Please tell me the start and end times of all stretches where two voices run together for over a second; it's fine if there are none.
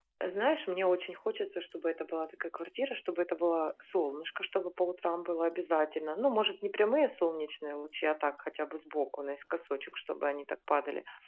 none

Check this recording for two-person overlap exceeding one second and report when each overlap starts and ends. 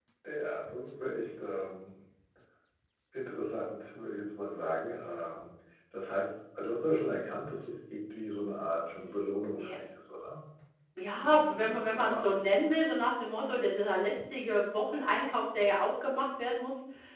11.2-12.4

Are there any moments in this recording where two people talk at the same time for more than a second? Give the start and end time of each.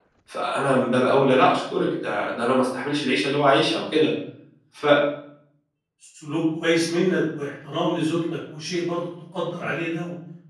none

